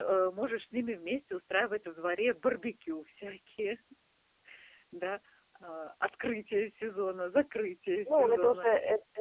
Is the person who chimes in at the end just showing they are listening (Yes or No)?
No